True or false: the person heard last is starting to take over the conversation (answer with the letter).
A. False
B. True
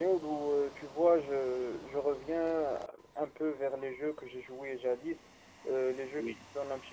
A